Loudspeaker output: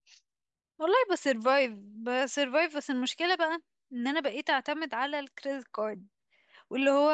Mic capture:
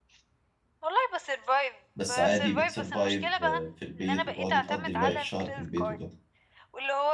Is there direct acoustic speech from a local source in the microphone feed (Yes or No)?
Yes